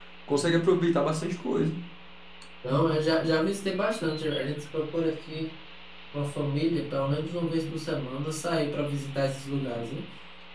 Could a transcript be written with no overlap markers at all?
Yes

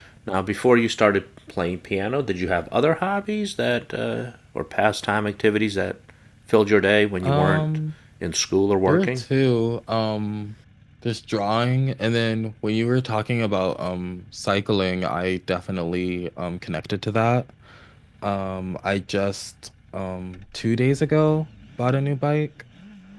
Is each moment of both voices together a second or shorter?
Yes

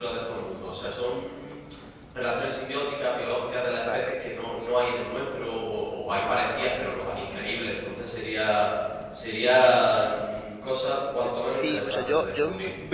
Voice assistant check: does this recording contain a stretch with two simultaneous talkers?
Yes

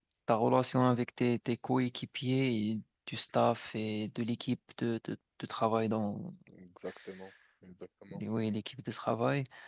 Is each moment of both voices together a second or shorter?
Yes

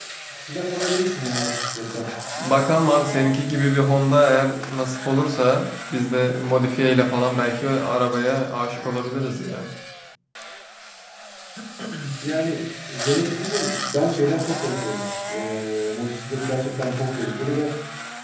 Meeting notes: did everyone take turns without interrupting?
Yes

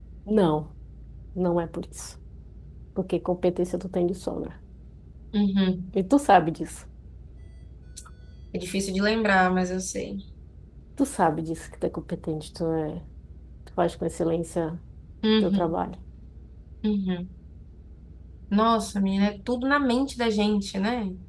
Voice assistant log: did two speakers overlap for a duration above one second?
No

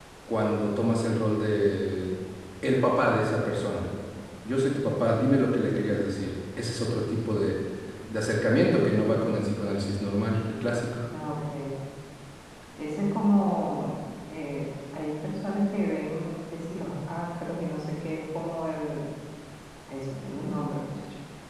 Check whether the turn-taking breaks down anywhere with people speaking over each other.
No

